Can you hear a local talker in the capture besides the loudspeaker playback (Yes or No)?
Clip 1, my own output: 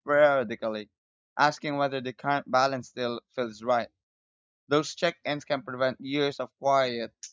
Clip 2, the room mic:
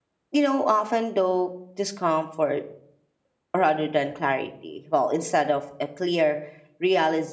Yes